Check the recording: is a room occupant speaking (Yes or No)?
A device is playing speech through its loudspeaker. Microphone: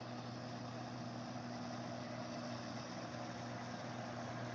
No